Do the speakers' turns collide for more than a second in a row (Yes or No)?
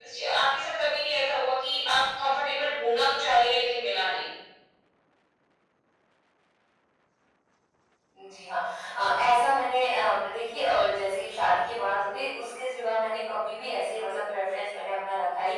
No